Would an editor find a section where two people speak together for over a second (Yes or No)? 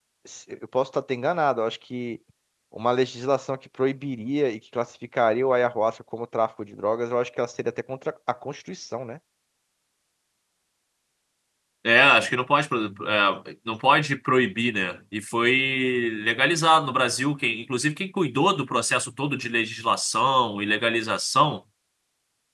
No